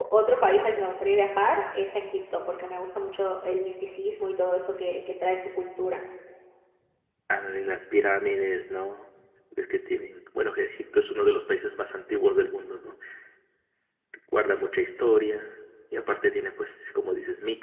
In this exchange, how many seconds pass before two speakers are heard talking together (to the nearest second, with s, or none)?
none